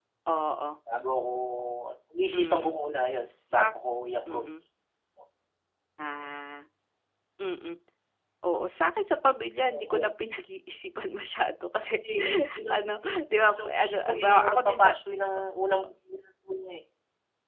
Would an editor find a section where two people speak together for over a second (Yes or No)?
Yes